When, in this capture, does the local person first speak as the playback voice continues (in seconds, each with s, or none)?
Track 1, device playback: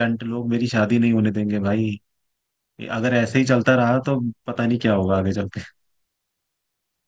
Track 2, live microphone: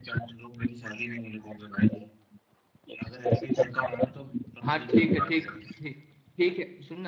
4.6 s